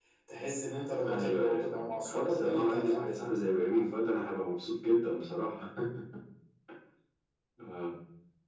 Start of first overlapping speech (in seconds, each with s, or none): 1.0 s